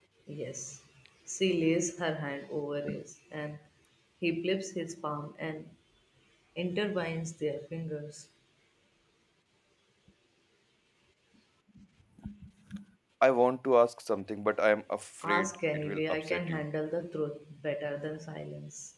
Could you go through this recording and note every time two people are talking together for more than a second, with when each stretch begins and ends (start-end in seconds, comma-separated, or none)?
15.2-16.6